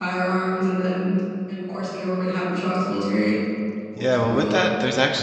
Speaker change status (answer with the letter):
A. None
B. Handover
B